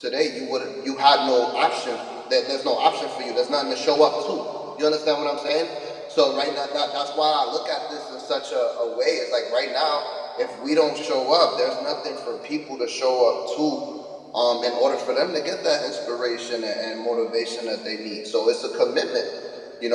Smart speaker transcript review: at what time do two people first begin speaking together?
none

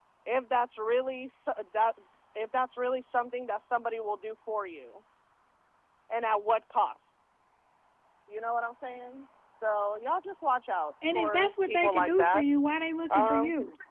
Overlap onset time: 11.1 s

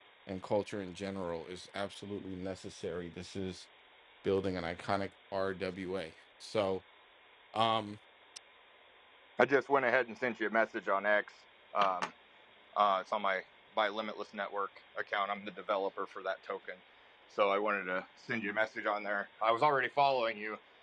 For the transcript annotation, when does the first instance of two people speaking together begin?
none

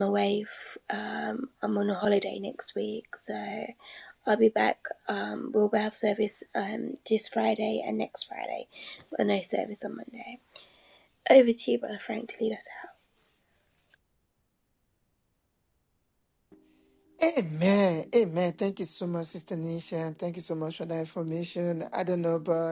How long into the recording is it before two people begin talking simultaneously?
none

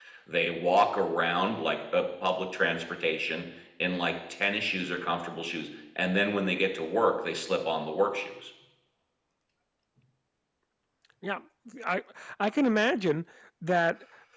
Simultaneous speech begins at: none

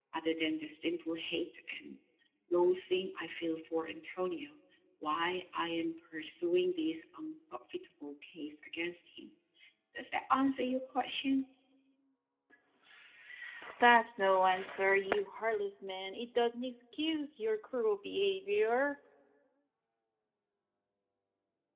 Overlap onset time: none

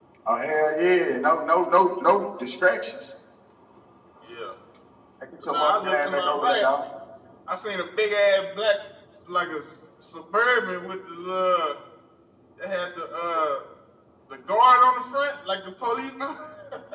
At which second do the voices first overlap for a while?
5.4 s

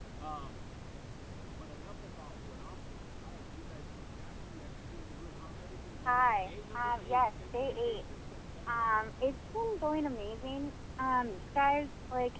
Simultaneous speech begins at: 6.0 s

